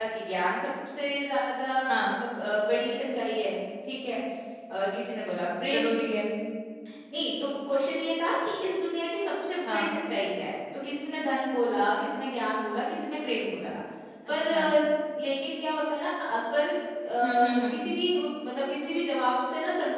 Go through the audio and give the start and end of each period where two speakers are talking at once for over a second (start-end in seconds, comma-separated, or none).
none